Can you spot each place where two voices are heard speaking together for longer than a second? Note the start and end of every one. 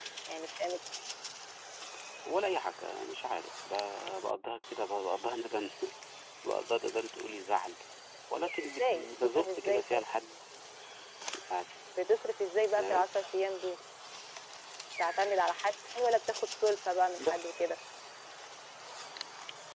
8.8-10.0

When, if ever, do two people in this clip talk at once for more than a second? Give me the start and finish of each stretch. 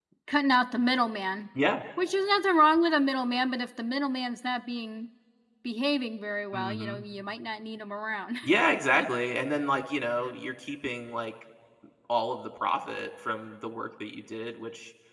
none

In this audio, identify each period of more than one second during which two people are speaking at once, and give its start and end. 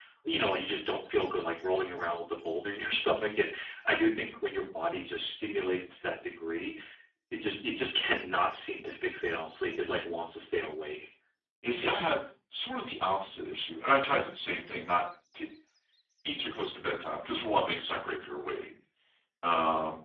none

